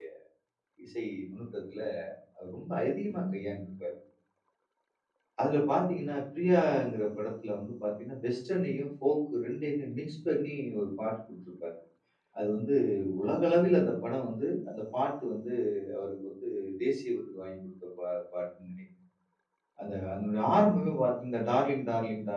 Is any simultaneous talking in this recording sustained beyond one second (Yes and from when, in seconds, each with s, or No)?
No